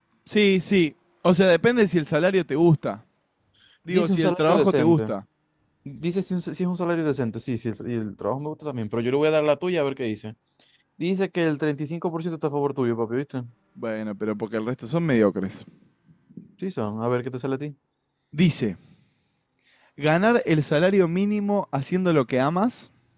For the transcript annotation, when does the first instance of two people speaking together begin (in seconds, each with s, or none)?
3.9 s